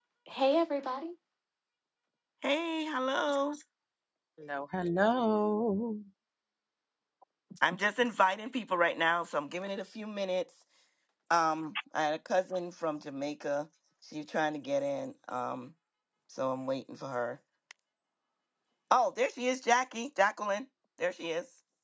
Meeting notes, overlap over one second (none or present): none